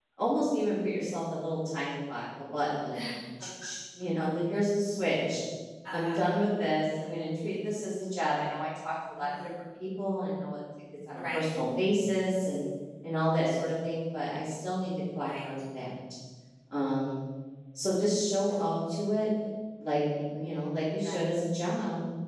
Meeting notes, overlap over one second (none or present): none